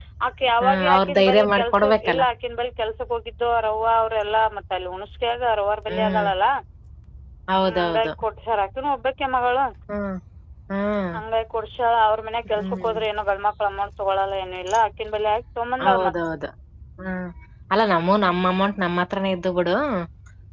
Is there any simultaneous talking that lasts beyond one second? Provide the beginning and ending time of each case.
0.6-2.2

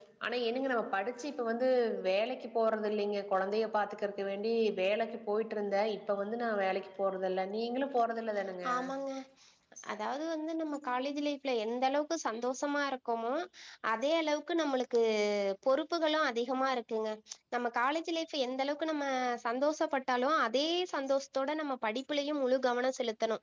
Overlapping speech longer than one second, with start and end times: none

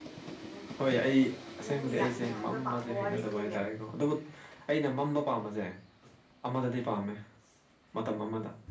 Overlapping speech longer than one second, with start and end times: 1.6-3.4

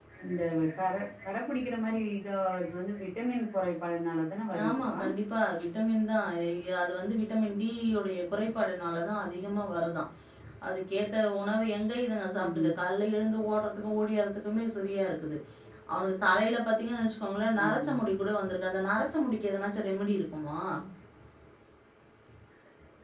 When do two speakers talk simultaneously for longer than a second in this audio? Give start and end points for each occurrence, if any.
none

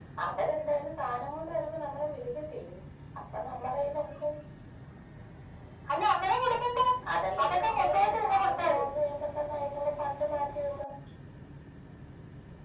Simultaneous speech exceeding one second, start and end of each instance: 7.4-8.8

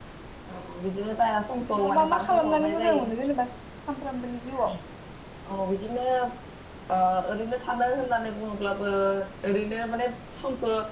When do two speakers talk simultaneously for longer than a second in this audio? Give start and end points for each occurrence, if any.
1.5-3.0

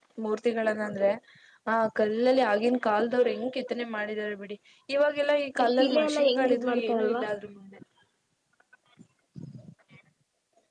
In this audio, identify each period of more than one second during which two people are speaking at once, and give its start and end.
5.6-7.2

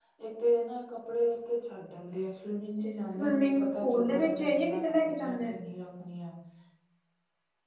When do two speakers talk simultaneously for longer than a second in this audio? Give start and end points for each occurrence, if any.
2.8-5.4

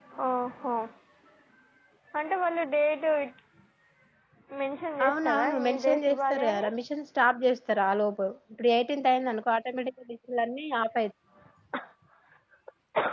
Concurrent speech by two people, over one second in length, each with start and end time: 5.0-6.7

